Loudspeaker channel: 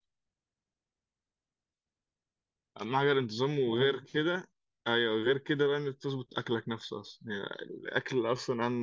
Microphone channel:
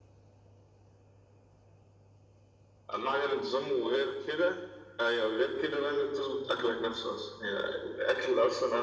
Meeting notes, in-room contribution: none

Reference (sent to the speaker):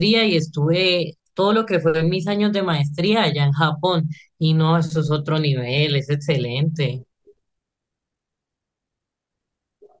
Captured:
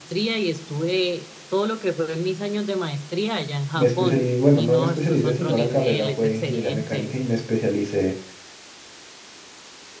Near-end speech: present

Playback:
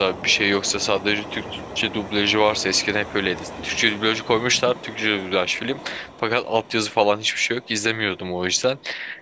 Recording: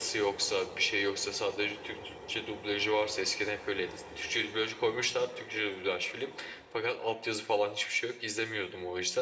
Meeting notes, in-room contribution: none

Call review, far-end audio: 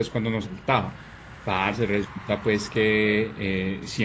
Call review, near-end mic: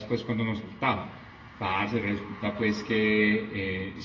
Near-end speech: none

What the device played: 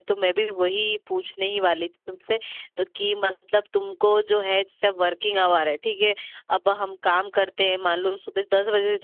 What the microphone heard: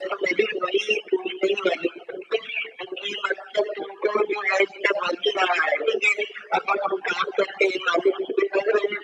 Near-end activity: none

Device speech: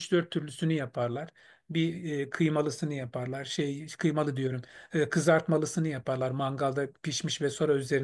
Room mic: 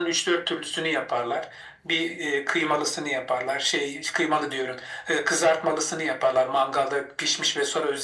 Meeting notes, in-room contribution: none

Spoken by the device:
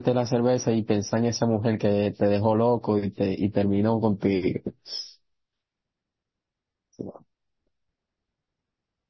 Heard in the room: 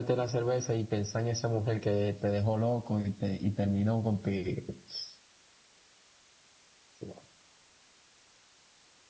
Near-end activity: none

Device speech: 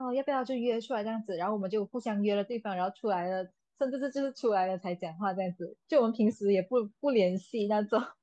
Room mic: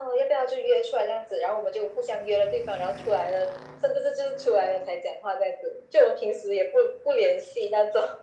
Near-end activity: none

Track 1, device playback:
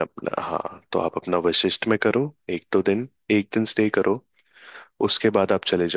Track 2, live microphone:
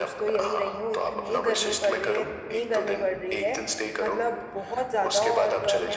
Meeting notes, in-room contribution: present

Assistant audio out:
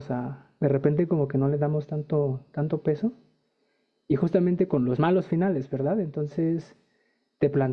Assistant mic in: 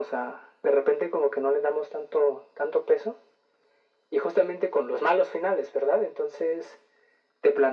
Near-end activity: none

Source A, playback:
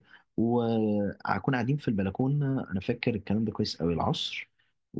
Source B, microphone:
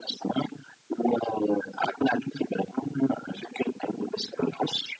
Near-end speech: none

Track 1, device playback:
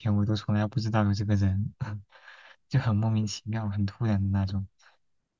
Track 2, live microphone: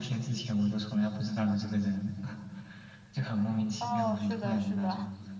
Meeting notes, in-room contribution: present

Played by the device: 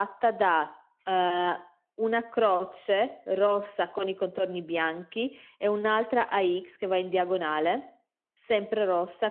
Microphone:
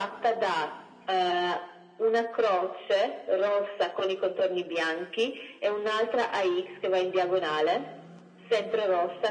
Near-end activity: none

